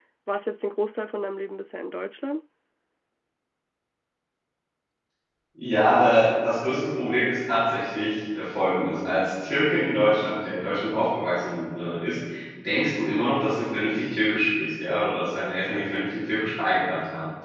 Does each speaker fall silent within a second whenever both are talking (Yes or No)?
Yes